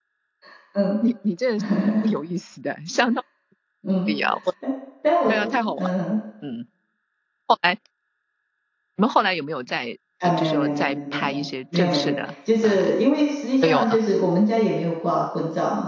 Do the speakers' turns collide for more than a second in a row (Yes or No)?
Yes